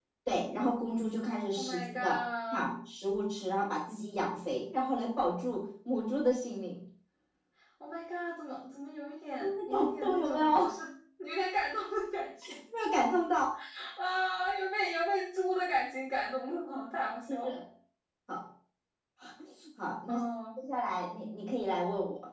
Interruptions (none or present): present